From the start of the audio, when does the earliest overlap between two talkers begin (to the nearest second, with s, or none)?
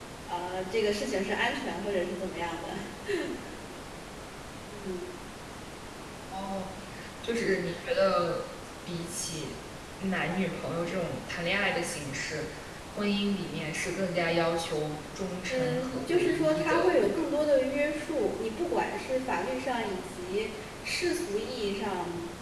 15 s